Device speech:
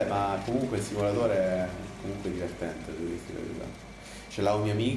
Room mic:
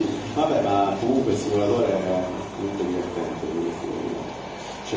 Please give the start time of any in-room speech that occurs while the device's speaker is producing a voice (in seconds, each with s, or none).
none